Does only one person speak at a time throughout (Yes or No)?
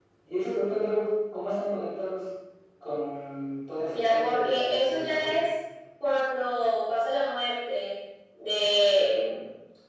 No